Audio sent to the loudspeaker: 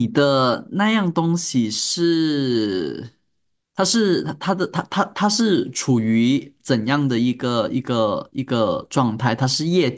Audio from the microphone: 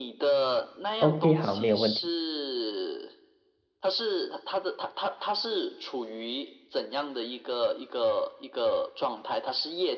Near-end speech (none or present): present